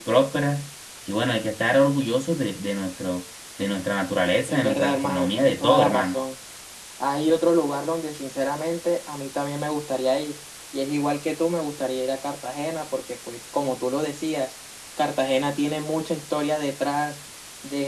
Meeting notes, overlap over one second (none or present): present